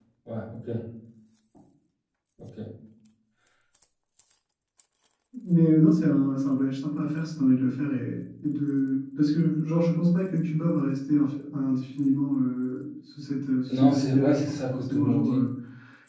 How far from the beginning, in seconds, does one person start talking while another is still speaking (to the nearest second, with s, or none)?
14 s